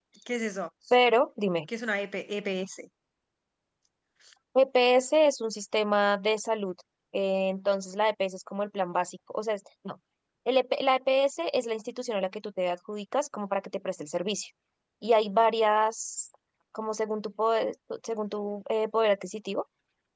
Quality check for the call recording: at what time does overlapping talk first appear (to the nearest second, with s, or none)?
none